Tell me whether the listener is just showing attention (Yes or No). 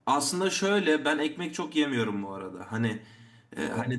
Yes